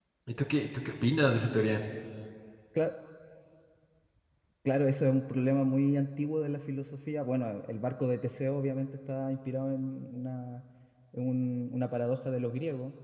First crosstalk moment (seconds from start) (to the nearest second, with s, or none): none